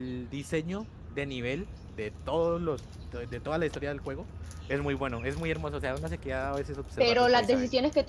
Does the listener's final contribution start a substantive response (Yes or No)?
Yes